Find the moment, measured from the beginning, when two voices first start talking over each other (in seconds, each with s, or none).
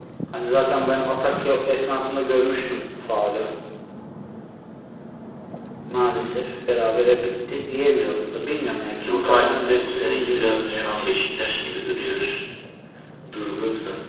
9.0 s